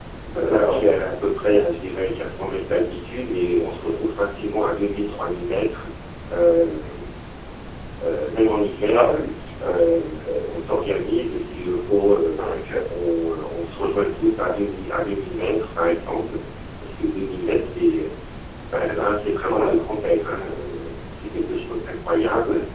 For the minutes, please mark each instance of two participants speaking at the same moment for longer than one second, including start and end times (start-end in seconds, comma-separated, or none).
none